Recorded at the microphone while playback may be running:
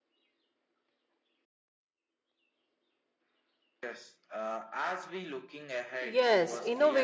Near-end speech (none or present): present